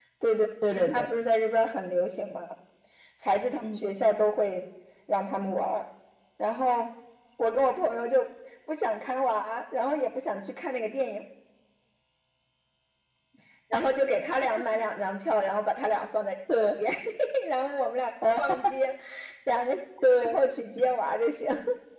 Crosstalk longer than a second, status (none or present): none